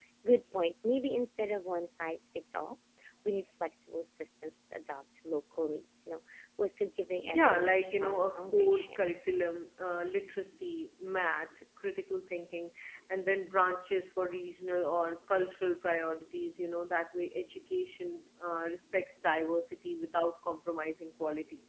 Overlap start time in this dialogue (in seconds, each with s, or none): 7.2 s